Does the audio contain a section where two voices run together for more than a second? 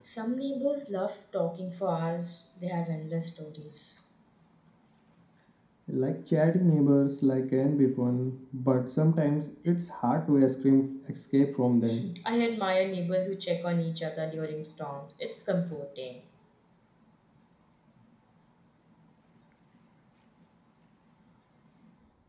No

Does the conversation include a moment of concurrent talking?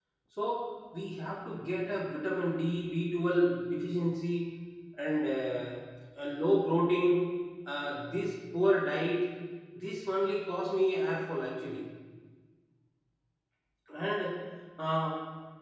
No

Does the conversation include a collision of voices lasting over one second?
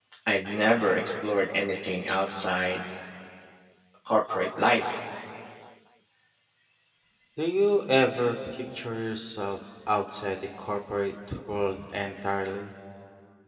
No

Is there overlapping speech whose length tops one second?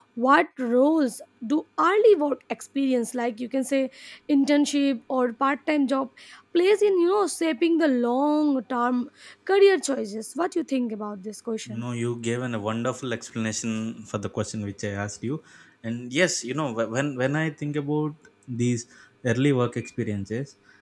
No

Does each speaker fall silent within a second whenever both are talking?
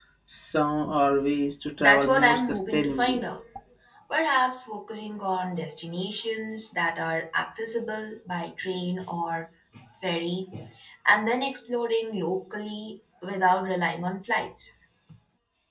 No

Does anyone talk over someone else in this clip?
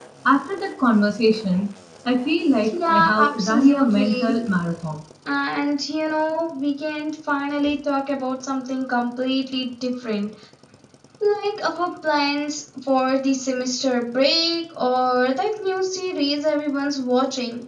Yes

